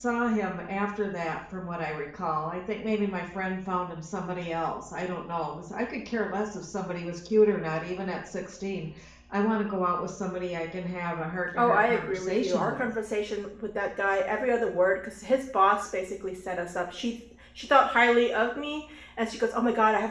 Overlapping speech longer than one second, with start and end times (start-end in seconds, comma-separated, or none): 11.6-12.9